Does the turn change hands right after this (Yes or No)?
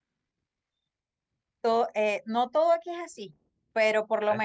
No